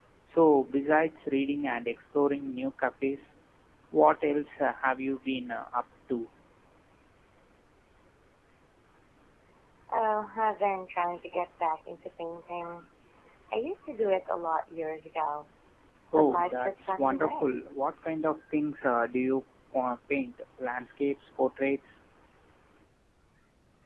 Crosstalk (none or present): present